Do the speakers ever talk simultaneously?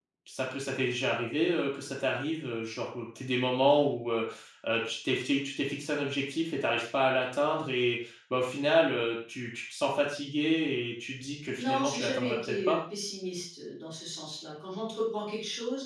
Yes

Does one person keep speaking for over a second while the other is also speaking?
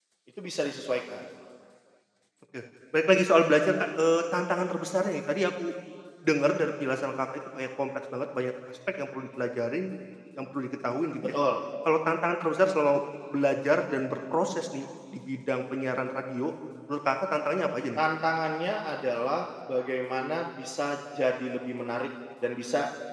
No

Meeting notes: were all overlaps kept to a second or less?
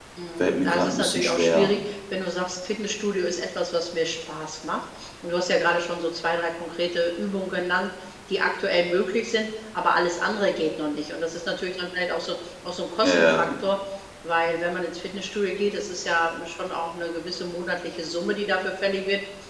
No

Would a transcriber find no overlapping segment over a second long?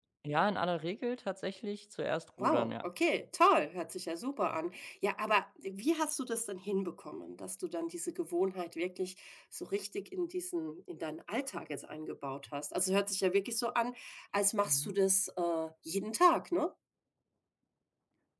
Yes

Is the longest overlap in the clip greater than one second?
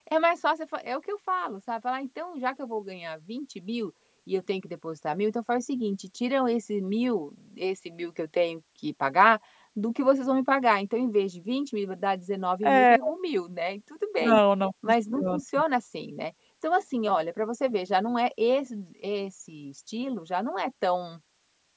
No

